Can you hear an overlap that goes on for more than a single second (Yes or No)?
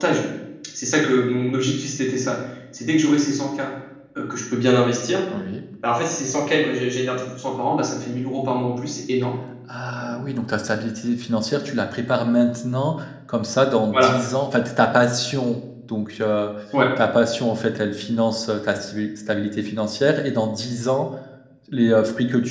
No